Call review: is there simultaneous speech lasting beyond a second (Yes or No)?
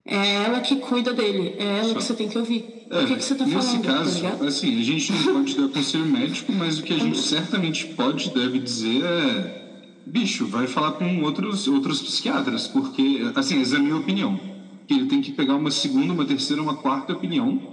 Yes